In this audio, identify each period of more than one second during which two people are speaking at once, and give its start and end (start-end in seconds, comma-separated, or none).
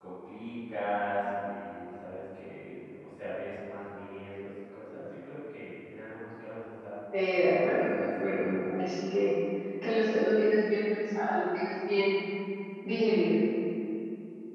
7.3-8.5